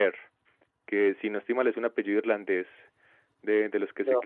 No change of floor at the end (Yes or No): Yes